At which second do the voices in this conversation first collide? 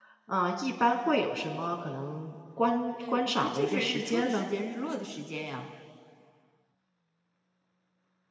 3.0 s

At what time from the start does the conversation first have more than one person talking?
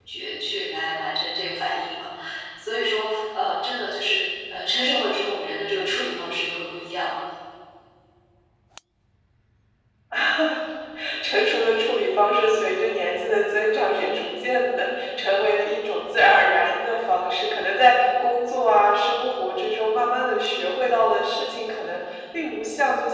none

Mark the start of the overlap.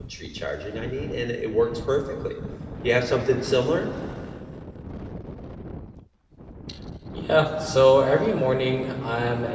none

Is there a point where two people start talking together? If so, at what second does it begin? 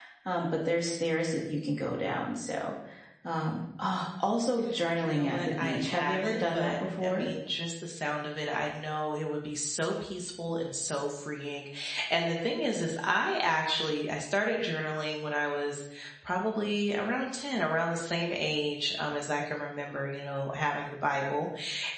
5.0 s

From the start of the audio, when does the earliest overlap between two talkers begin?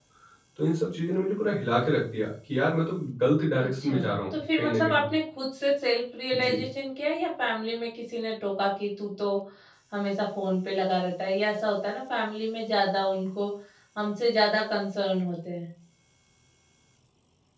3.6 s

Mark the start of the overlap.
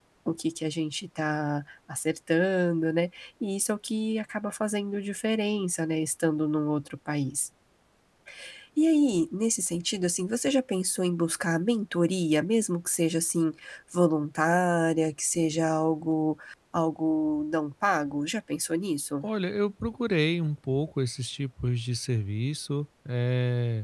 none

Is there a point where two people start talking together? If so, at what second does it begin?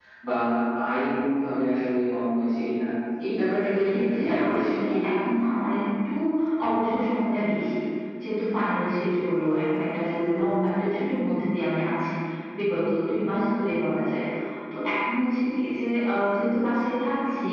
3.8 s

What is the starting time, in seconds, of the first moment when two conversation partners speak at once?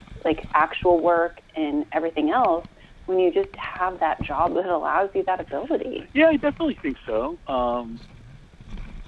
none

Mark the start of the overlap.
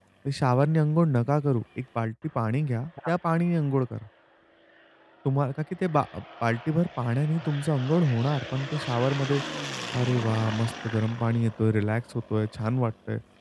none

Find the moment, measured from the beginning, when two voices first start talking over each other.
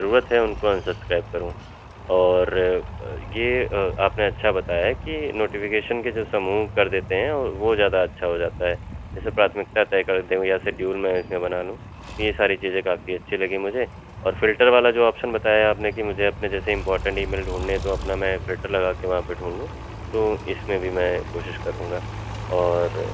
none

